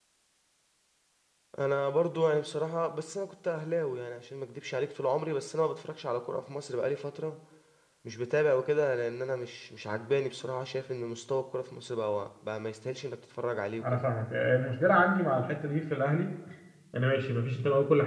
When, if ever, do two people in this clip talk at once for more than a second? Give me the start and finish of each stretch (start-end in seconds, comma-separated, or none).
none